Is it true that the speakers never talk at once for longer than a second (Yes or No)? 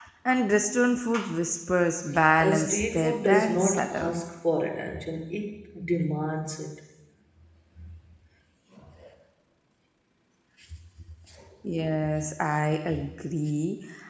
No